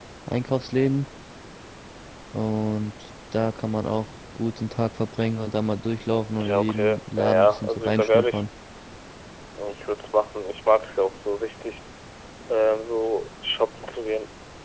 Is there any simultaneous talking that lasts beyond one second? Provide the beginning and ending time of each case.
6.4-8.4

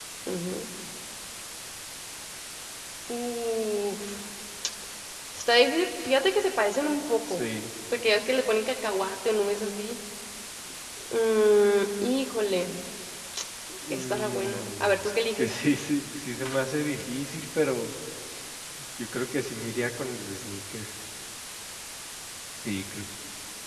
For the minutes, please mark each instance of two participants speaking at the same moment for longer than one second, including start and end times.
13.9-15.6

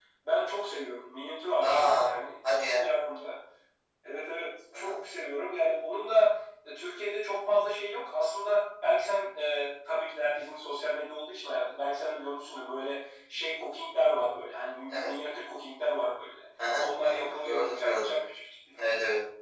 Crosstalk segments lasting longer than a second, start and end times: 16.8-18.1

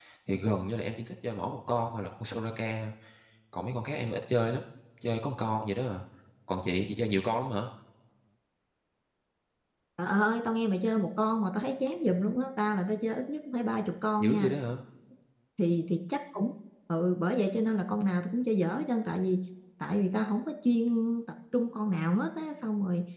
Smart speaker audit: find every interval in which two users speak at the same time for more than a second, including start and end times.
none

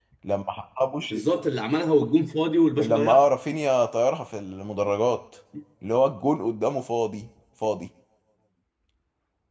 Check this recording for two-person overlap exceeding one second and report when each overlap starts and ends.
none

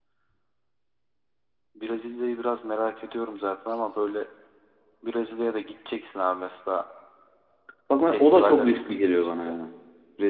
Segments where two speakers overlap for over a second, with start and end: 8.1-9.6

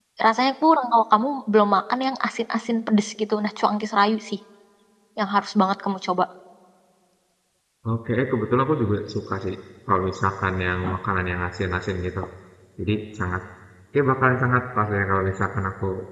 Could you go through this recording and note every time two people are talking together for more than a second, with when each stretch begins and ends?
none

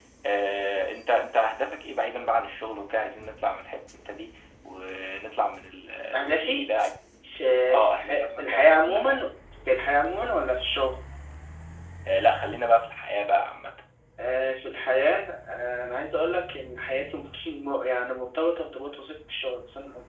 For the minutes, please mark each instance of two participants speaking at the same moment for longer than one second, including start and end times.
7.2-9.2

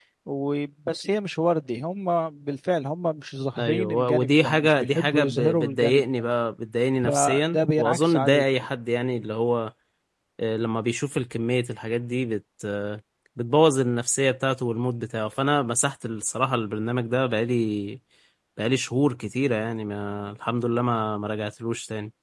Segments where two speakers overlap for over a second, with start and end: 3.6-6.0, 7.0-8.4

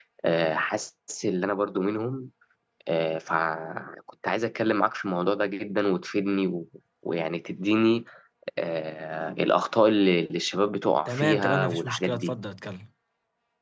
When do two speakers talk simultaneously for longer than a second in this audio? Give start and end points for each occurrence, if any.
11.1-12.3

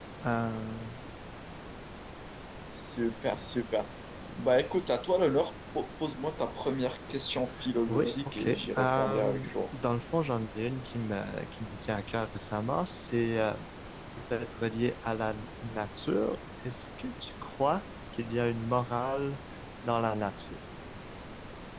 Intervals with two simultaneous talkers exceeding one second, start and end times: 7.9-9.5

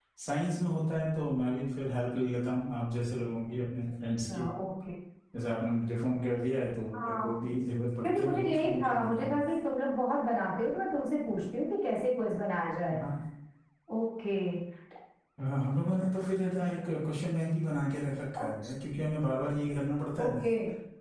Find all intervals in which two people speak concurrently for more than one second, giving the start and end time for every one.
8.0-9.4

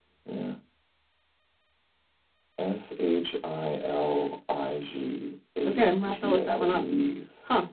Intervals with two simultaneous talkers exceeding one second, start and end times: 5.6-6.9

